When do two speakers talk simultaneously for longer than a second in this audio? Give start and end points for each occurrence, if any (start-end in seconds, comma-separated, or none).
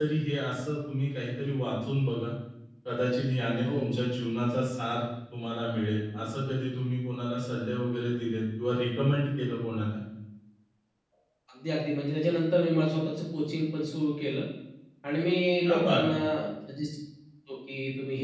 none